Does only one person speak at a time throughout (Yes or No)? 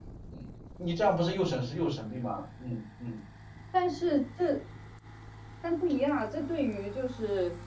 Yes